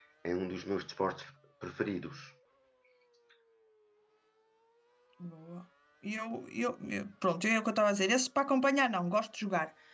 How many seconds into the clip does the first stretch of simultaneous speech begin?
none

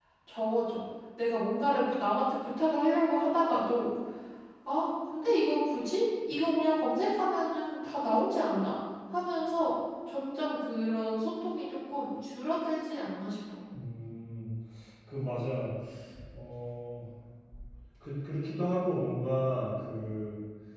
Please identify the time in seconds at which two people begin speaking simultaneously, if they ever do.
none

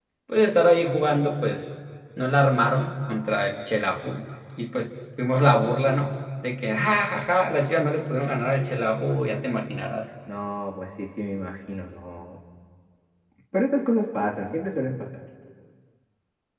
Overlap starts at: none

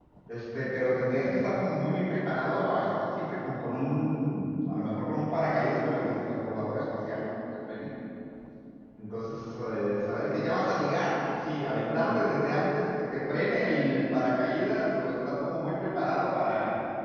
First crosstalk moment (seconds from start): none

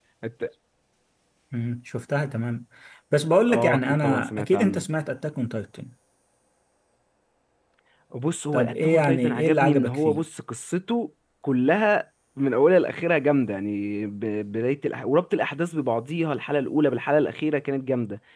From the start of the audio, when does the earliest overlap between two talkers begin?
3.5 s

